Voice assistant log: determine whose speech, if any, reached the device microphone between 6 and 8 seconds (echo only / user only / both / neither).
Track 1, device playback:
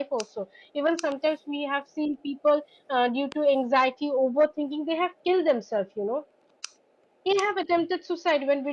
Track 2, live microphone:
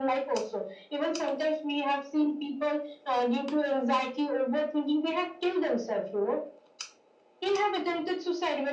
echo only